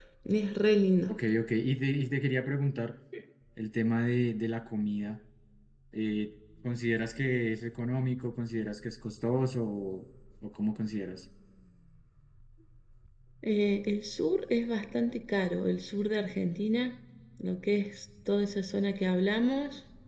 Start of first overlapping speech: none

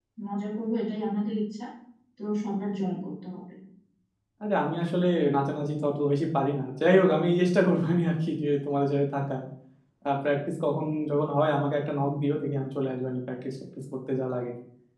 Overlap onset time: none

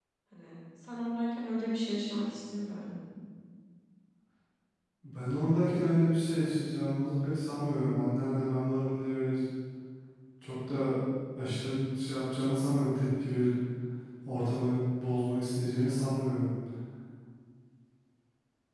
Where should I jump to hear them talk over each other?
none

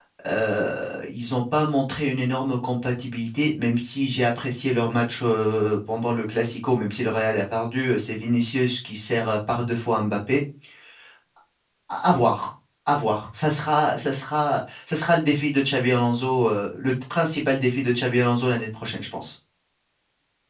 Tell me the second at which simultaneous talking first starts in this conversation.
none

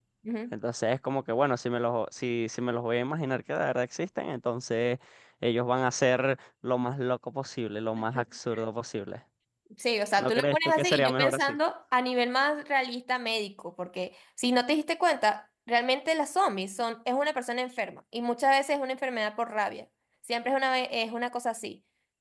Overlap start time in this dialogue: 10.2 s

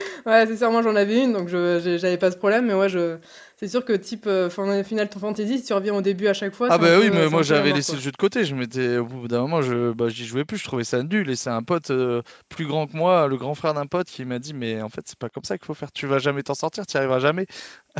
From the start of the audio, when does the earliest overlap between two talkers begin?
6.7 s

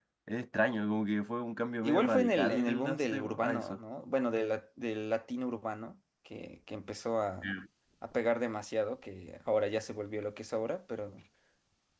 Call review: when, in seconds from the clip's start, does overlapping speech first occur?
1.8 s

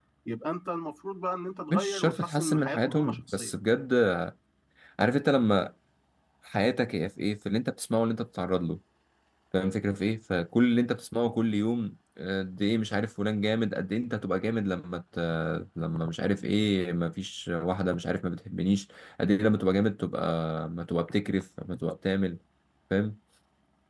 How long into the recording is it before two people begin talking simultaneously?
1.7 s

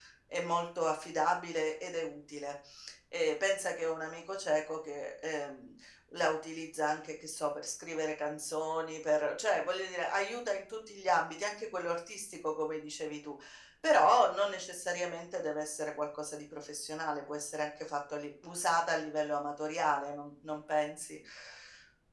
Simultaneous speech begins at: none

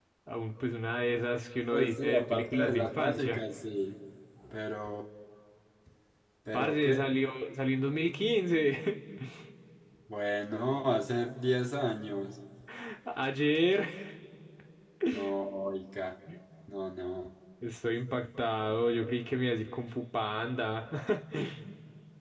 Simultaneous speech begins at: 1.7 s

